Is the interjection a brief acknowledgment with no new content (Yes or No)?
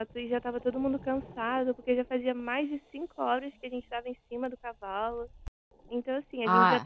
No